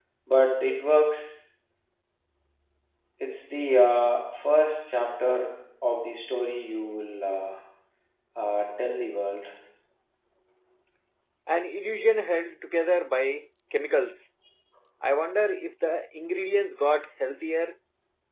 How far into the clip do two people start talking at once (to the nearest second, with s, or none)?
none